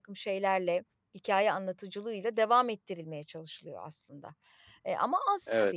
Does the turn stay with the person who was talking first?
Yes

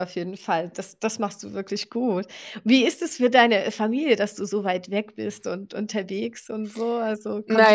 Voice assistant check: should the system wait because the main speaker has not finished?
No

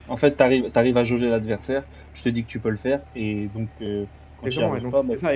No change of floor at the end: No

